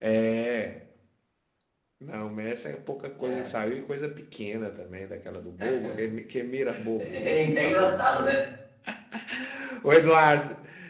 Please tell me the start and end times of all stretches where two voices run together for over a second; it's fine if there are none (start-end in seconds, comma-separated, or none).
7.0-8.4